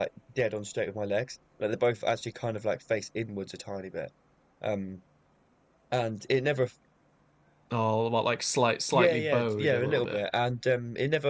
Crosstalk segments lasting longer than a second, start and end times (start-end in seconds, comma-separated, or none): 8.9-10.3